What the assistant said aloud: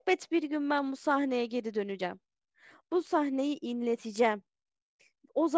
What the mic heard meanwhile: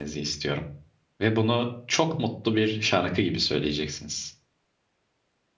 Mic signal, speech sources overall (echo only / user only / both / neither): user only